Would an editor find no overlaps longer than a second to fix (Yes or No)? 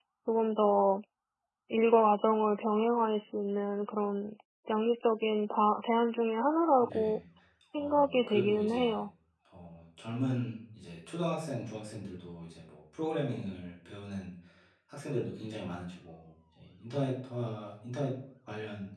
No